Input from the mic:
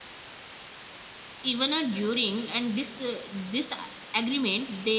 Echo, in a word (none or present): none